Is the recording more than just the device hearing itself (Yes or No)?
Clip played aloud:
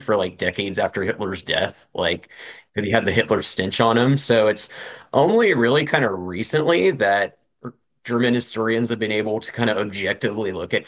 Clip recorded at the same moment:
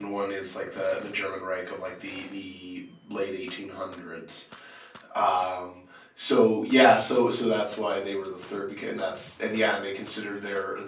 Yes